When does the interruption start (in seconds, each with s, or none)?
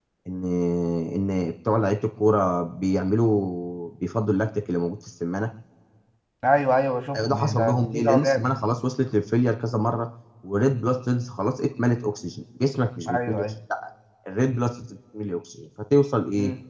7.2 s